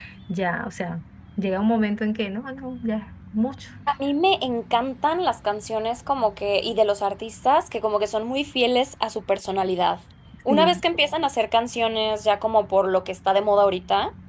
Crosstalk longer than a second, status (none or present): none